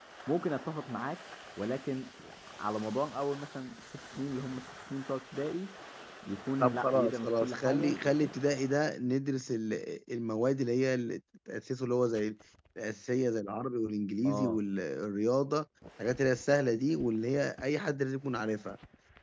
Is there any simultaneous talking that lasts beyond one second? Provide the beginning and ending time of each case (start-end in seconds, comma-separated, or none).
6.6-8.3